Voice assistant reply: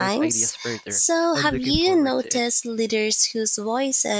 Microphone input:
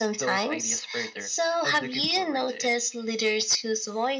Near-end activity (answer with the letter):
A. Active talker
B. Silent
B